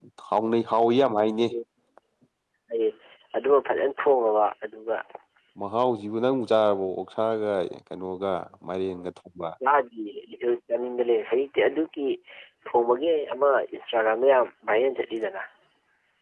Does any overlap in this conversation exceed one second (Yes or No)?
No